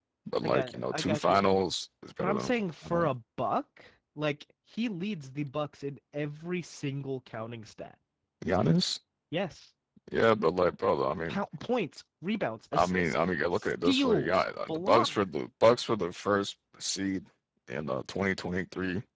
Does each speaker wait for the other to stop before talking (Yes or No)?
No